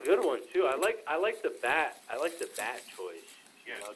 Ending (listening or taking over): taking over